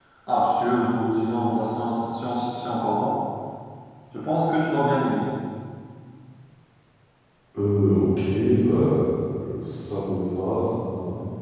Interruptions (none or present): none